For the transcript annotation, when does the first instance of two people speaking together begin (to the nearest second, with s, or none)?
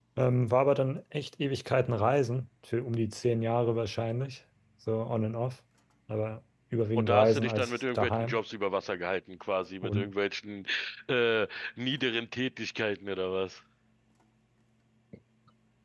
7 s